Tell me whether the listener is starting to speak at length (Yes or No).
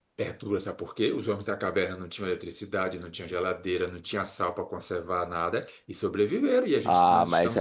Yes